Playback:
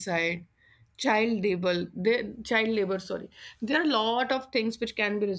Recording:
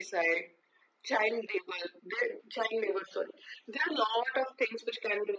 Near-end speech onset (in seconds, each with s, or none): none